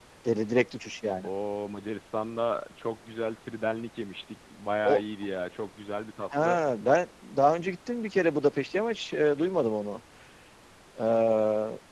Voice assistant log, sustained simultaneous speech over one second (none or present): none